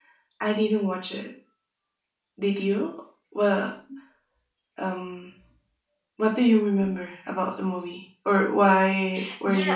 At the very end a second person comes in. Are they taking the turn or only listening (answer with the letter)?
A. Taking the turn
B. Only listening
A